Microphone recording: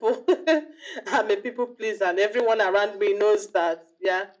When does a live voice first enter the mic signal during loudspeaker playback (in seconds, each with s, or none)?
none